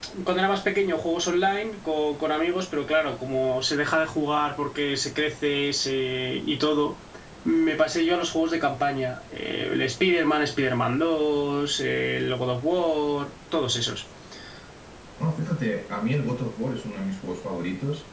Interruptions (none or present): none